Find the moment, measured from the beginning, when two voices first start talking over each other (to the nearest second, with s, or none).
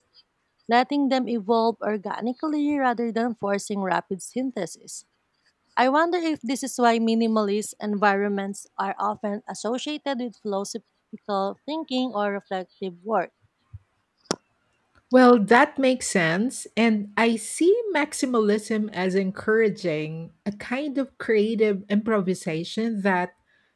none